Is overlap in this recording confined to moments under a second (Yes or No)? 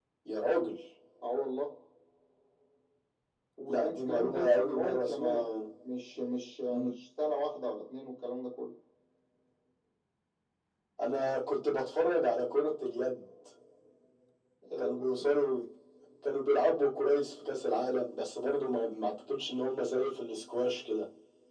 No